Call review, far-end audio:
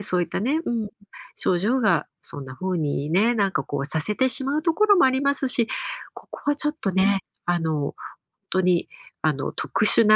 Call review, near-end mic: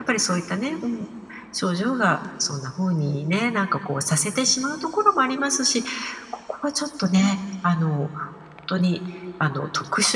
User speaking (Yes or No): No